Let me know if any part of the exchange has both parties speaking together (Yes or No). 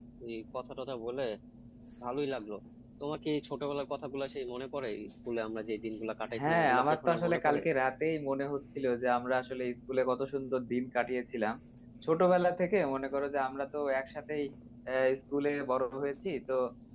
Yes